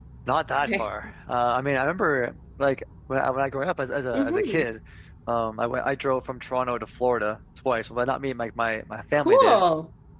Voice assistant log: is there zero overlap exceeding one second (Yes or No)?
Yes